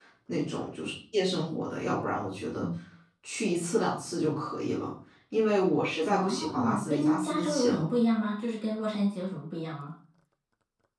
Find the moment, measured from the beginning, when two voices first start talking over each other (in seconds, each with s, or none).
6.1 s